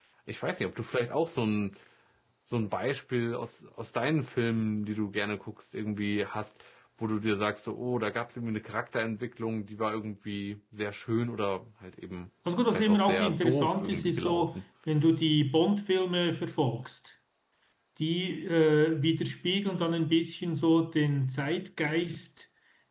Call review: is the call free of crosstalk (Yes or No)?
No